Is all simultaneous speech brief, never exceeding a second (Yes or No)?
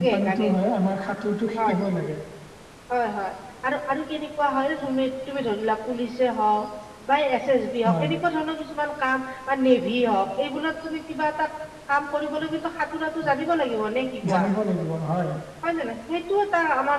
Yes